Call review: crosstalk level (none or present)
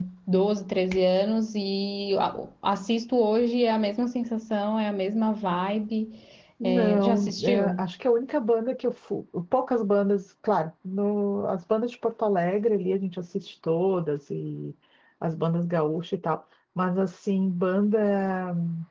present